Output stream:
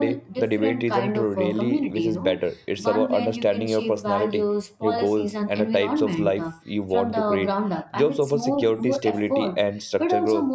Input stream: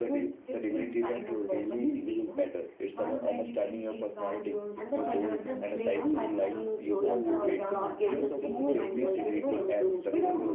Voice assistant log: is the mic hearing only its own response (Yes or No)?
No